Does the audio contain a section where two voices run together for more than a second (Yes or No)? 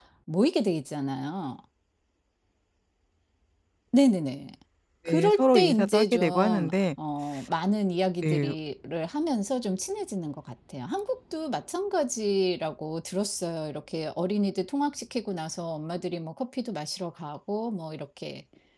Yes